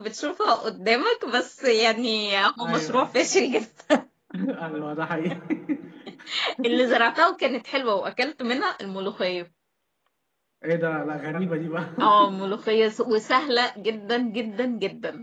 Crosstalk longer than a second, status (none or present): none